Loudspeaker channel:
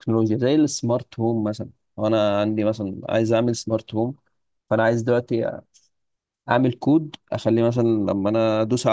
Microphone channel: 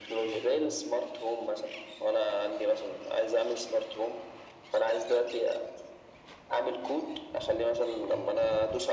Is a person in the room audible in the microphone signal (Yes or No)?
No